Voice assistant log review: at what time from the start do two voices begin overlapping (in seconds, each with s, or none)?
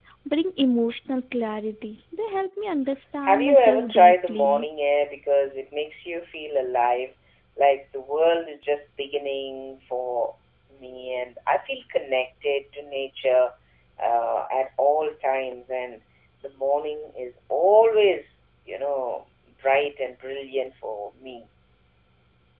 3.3 s